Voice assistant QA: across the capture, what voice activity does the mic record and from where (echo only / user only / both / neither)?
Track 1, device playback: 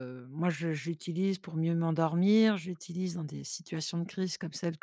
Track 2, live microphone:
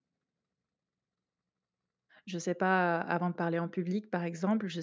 user only